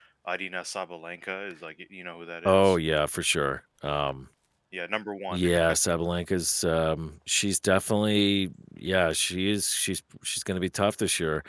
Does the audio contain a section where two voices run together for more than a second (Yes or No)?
No